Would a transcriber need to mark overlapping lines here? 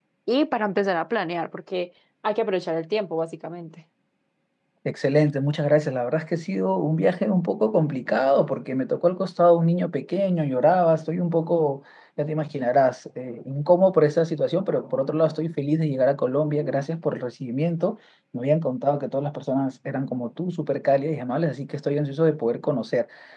No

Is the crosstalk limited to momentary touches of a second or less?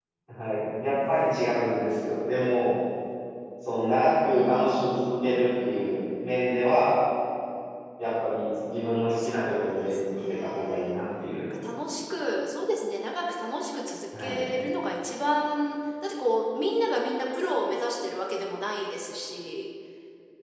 No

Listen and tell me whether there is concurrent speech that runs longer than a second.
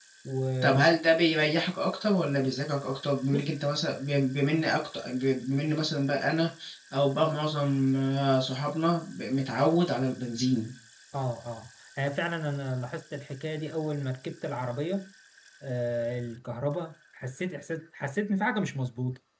No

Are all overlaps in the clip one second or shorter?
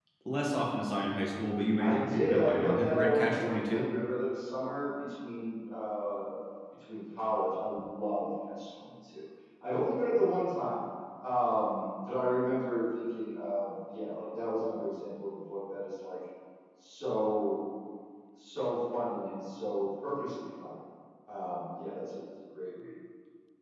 No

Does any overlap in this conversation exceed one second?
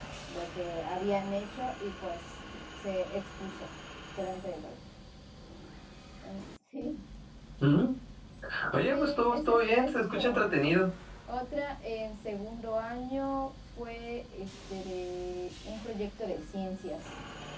Yes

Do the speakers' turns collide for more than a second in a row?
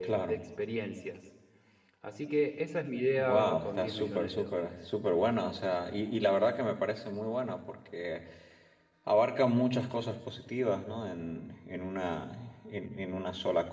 Yes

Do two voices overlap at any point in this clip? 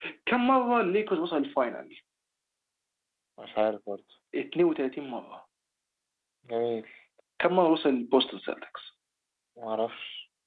No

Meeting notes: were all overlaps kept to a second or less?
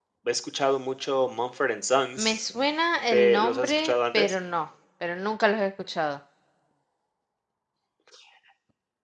No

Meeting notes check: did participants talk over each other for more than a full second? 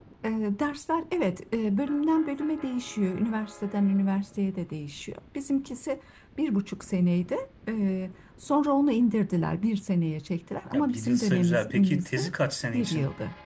Yes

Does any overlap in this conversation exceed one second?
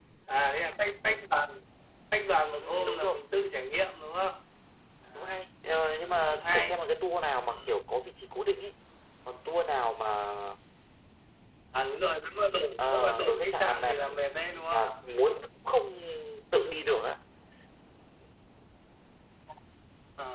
Yes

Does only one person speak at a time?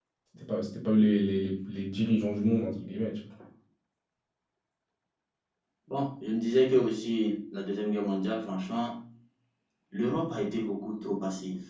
Yes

